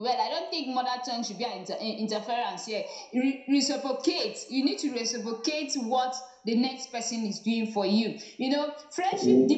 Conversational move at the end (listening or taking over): listening